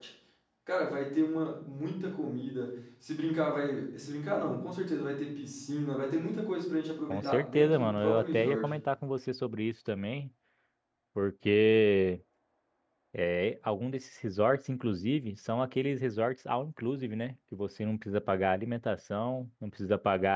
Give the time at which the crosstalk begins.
7.1 s

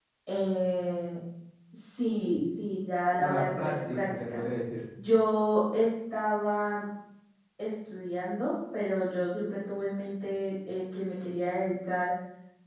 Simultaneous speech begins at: 3.2 s

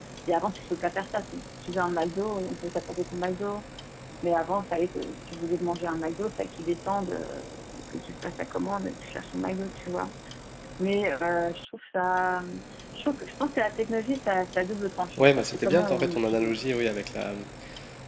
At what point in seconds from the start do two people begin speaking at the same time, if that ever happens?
15.2 s

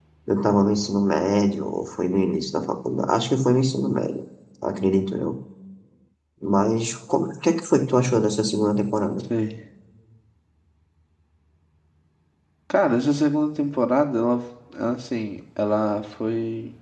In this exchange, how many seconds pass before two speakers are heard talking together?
none

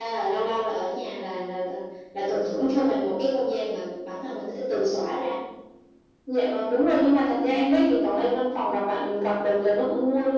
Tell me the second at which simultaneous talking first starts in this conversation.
none

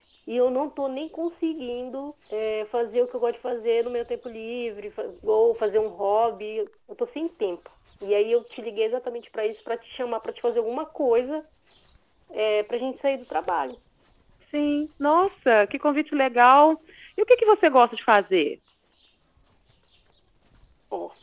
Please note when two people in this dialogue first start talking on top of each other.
none

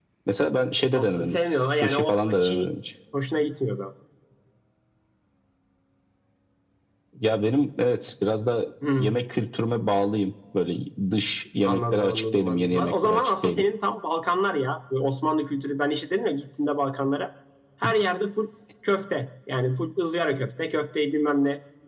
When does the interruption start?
1.0 s

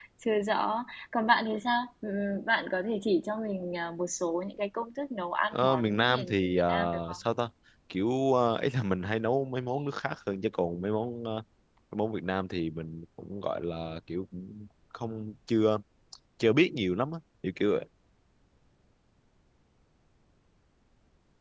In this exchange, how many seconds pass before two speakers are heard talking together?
5.5 s

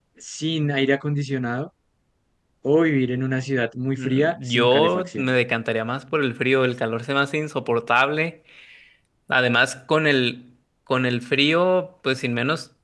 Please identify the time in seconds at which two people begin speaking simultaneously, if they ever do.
4.0 s

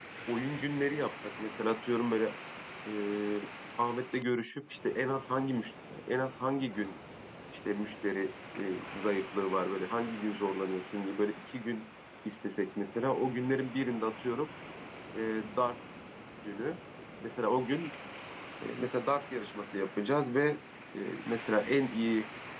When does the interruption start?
none

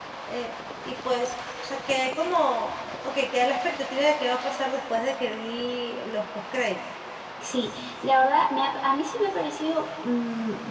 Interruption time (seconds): none

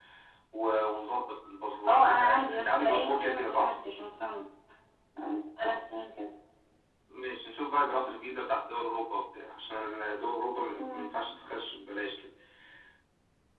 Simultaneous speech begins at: 1.9 s

